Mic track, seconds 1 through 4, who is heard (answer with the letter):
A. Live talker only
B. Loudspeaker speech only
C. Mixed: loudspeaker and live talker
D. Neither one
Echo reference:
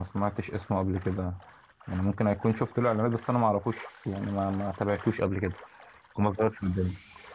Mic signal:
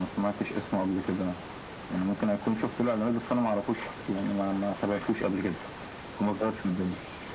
B